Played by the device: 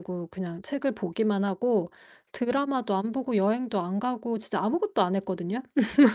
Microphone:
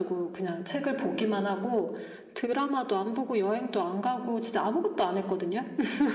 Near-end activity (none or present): none